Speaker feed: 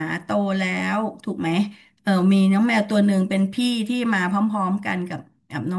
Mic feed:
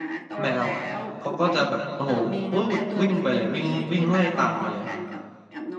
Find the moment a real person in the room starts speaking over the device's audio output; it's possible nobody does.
0.4 s

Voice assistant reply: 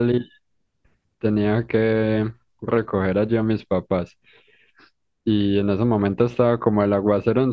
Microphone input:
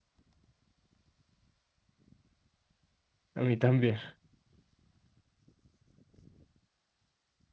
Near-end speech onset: 3.3 s

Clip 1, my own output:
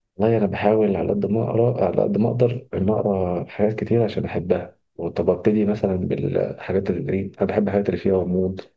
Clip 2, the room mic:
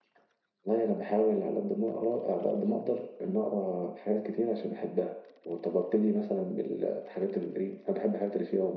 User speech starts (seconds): none

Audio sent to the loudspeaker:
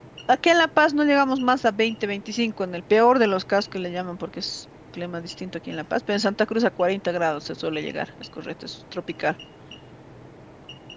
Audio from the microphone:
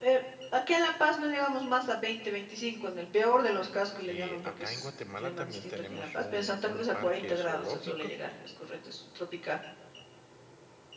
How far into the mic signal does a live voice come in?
4.0 s

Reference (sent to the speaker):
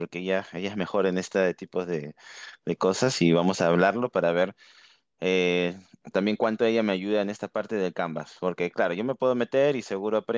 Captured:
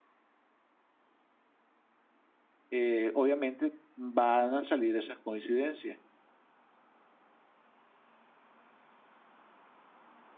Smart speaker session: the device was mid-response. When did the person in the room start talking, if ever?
2.7 s

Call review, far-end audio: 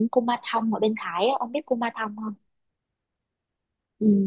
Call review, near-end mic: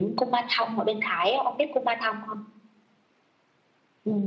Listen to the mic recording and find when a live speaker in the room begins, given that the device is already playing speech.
none

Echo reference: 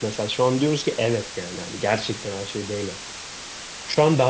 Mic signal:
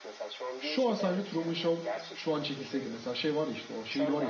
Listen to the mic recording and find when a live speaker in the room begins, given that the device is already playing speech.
0.6 s

